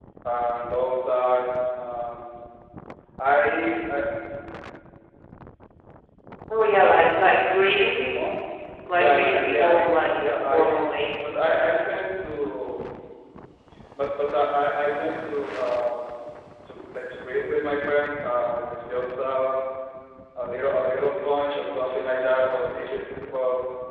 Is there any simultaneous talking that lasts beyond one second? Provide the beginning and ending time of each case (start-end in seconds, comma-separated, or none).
8.9-10.8